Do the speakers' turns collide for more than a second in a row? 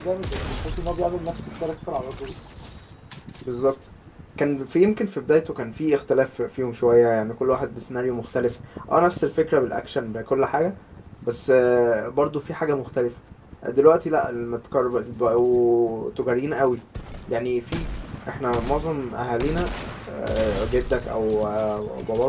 No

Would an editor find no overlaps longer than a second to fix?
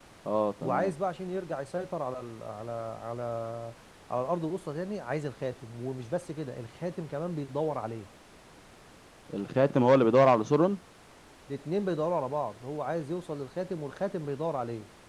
Yes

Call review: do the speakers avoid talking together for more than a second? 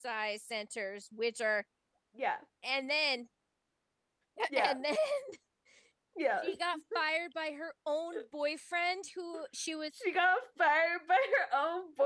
Yes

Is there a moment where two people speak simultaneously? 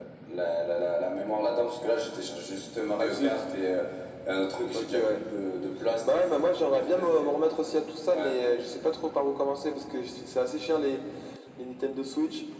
Yes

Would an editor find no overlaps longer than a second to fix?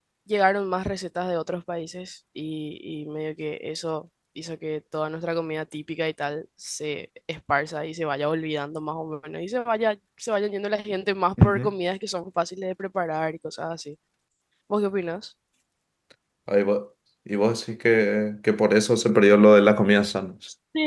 Yes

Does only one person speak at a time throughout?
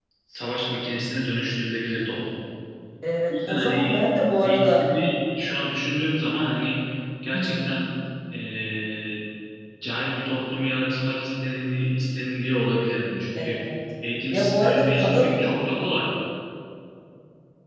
No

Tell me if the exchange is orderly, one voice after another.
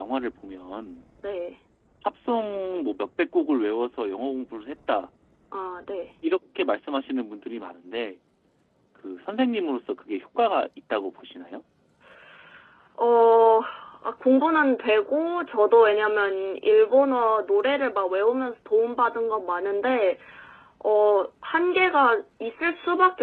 Yes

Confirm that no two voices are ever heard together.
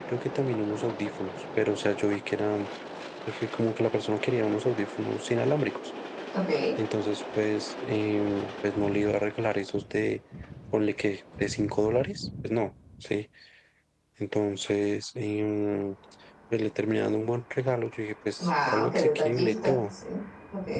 No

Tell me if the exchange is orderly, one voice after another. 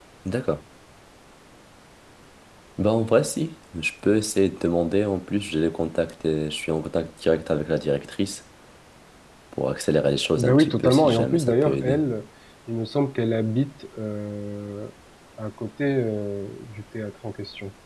No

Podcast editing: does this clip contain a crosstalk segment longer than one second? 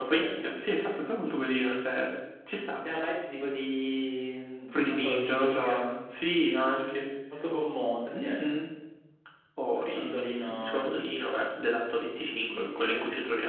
Yes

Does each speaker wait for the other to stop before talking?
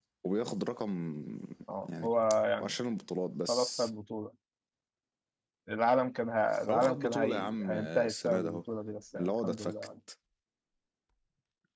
No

